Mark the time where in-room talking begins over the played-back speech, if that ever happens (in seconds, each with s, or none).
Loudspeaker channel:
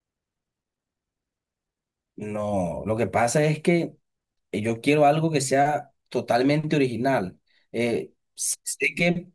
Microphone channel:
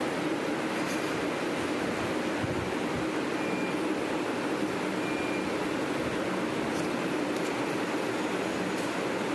none